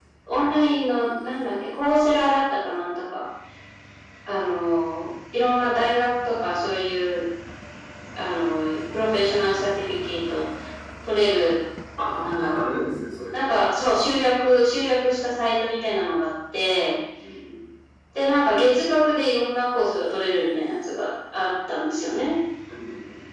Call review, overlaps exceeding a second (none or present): none